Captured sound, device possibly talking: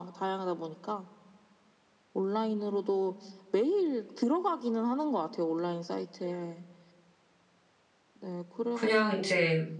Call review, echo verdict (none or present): present